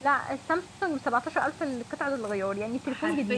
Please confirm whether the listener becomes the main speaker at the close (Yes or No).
Yes